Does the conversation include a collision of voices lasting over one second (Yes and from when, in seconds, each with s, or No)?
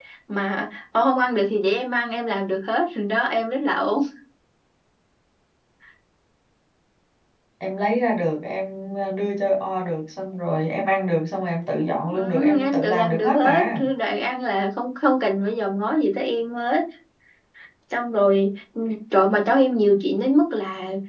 Yes, from 12.1 s